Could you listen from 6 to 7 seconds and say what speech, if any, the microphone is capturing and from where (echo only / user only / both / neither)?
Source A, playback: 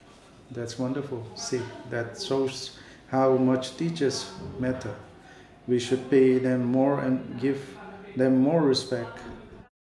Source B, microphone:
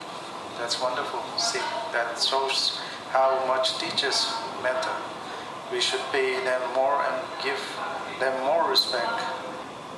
echo only